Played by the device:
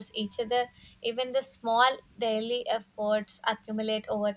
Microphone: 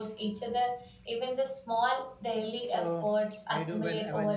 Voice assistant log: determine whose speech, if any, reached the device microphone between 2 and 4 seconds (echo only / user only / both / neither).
both